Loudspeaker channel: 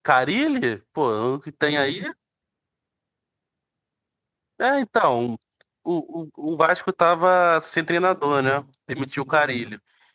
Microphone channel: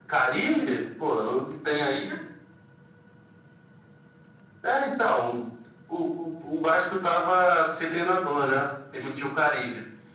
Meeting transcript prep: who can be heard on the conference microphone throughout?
echo only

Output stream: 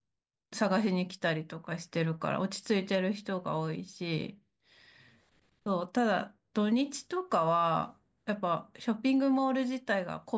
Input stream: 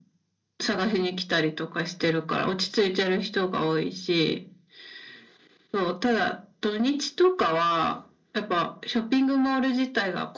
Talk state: echo only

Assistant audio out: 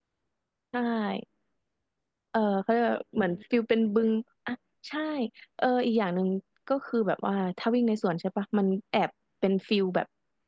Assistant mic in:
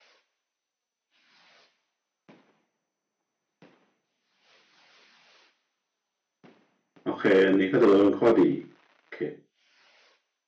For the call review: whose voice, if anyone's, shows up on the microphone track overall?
user only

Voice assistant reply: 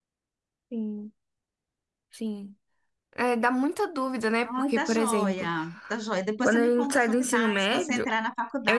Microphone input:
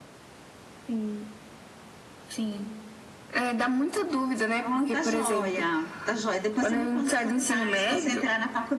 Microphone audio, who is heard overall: echo only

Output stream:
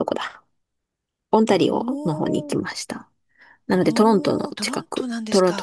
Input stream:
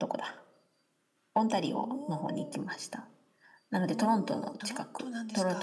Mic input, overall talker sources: echo only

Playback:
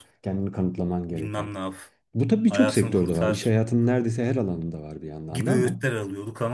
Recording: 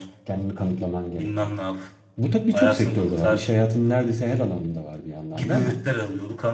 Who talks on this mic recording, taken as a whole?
echo only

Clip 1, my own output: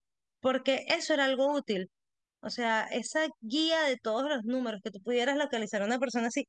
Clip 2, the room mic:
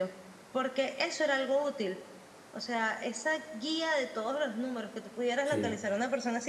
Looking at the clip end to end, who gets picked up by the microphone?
both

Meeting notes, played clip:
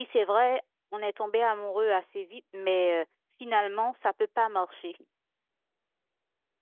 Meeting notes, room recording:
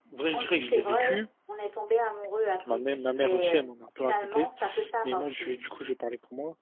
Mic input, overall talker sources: both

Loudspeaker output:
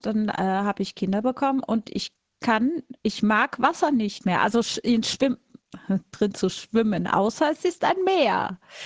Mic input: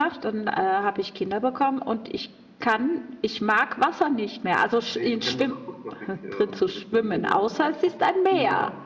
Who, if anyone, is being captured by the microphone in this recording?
both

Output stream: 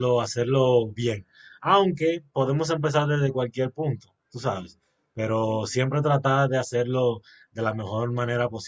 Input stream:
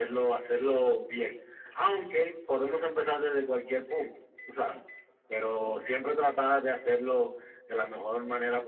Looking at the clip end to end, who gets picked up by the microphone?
echo only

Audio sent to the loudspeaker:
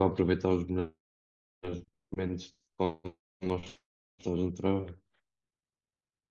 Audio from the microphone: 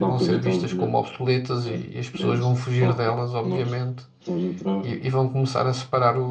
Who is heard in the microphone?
both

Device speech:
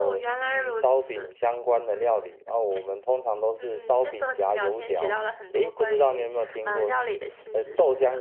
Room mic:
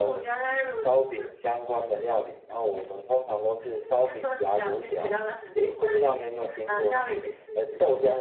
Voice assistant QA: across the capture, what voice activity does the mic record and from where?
echo only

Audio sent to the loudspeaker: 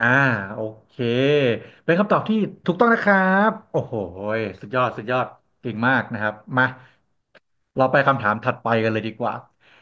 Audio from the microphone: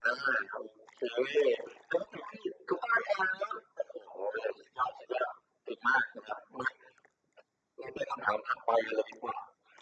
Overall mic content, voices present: echo only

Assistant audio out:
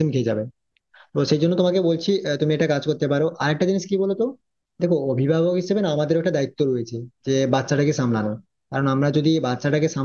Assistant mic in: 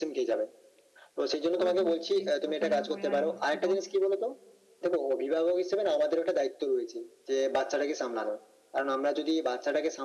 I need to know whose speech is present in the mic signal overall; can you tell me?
both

